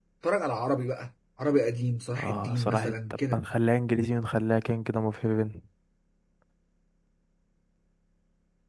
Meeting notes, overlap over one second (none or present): present